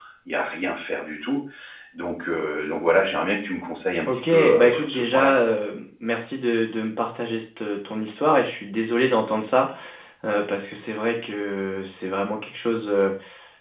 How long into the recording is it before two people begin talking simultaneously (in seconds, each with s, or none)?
4.1 s